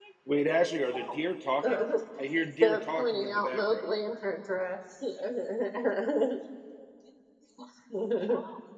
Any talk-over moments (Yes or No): Yes